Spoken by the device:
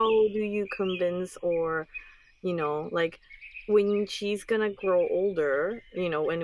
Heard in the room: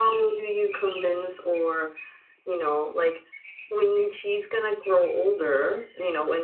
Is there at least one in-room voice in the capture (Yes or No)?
No